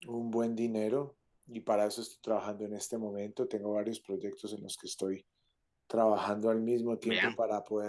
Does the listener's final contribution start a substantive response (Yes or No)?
No